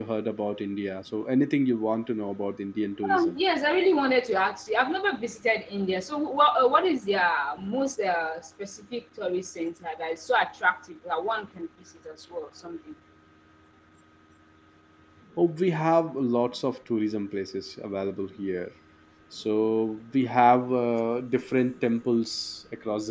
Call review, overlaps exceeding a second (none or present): none